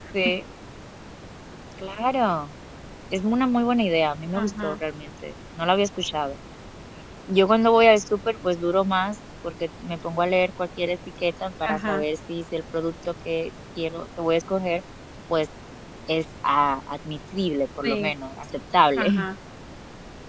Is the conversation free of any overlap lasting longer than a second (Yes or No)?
Yes